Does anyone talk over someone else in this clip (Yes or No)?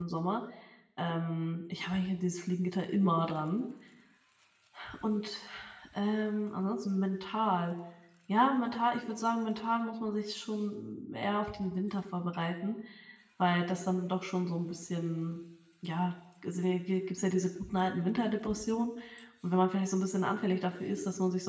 No